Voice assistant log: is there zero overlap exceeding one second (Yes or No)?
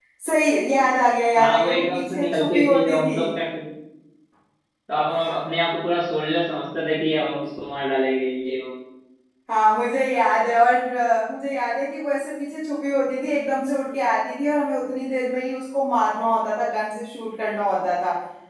No